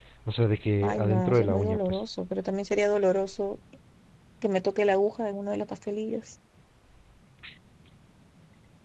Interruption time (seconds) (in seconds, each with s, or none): 0.8 s